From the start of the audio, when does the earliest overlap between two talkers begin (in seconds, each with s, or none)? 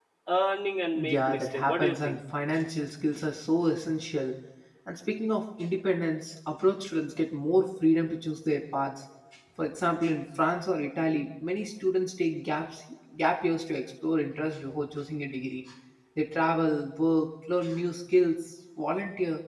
0.9 s